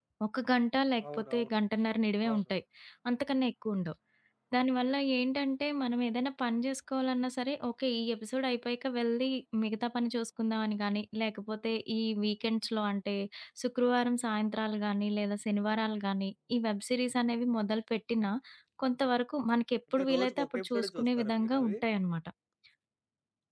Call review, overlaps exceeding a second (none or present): present